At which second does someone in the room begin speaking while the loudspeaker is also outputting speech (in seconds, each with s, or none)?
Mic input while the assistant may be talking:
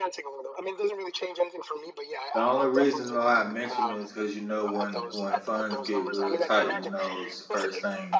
2.3 s